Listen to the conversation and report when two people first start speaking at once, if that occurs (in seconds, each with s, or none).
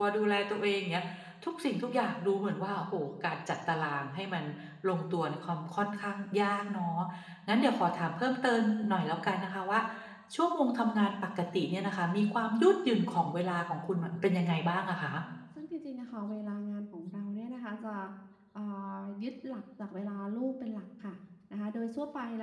none